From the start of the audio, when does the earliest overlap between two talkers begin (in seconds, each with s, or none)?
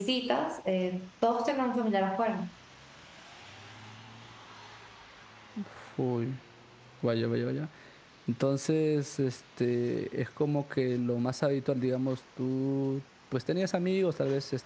none